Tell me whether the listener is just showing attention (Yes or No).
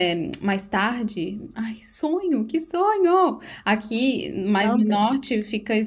Yes